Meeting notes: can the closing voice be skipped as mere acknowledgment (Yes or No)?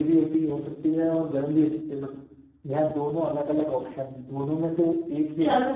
No